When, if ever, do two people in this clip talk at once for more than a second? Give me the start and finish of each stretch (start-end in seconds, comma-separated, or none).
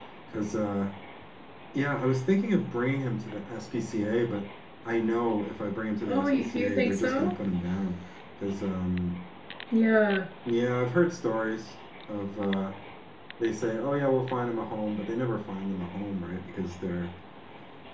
6.1-7.3